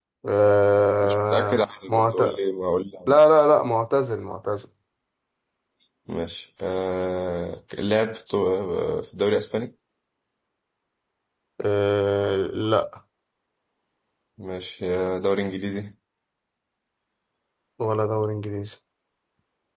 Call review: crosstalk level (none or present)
present